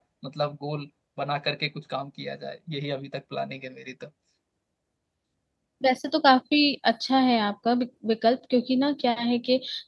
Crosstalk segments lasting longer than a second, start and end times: none

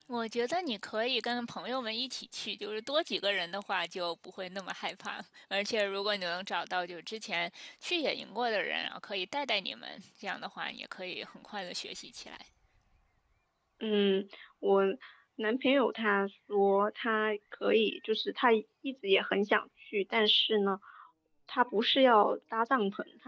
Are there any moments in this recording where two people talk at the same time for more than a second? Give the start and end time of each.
none

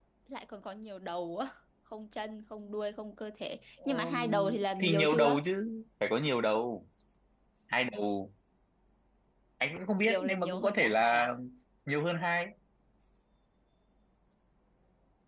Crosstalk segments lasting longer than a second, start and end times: 3.9-5.4, 10.0-11.3

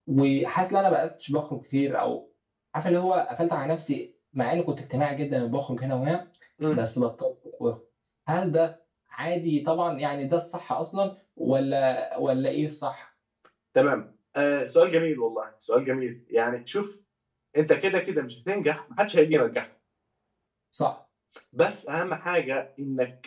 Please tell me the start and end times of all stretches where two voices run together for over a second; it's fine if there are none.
none

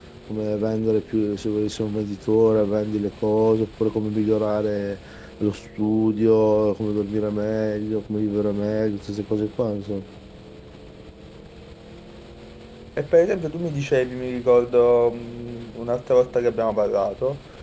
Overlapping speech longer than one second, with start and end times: none

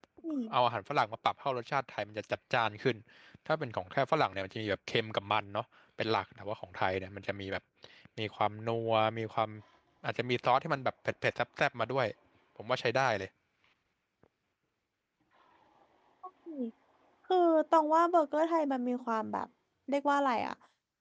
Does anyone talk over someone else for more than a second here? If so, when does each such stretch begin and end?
none

